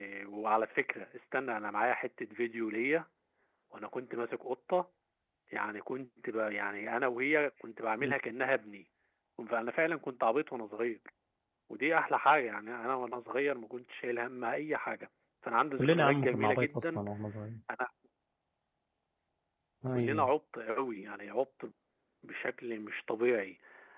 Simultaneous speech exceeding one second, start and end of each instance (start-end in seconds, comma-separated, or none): 15.8-17.0